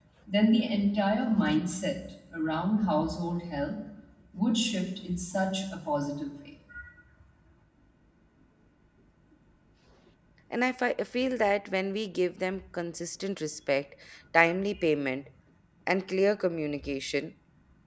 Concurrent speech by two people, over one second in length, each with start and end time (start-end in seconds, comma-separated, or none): none